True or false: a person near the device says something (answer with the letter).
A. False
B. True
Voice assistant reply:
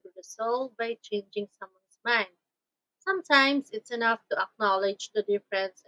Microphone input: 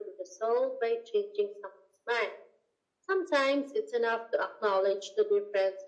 A